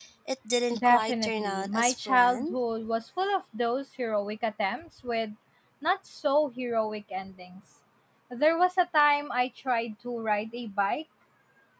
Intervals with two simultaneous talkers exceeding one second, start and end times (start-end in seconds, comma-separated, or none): 0.8-2.5